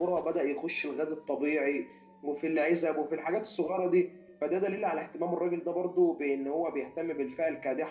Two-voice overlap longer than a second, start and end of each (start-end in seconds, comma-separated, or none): none